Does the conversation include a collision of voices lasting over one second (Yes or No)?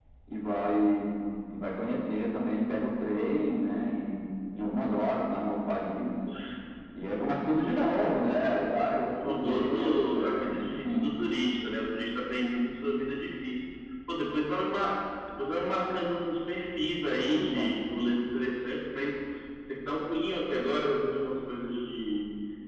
Yes